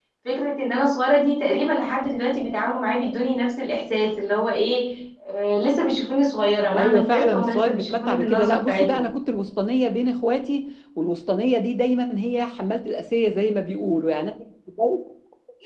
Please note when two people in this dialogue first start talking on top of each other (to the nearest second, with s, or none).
7 s